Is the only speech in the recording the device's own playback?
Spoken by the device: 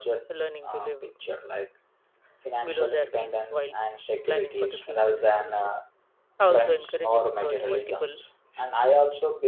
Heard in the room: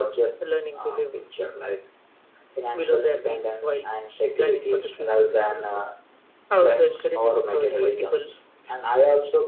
Yes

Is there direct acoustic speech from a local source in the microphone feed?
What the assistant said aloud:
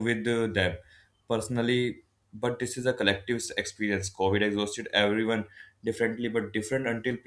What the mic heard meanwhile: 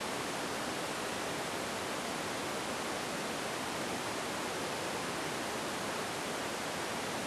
No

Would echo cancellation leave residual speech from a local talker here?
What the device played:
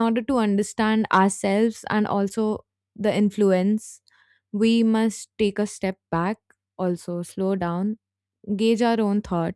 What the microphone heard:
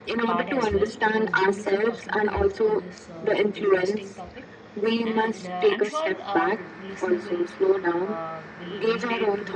Yes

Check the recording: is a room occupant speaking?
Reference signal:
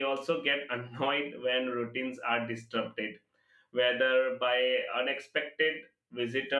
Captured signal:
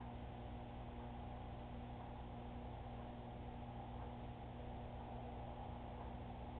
No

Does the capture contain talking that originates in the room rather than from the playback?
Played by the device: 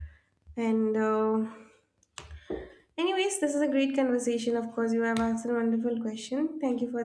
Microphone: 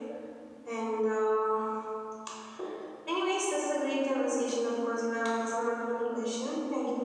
No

